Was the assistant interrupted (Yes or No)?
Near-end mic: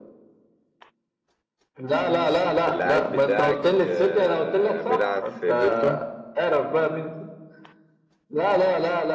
Yes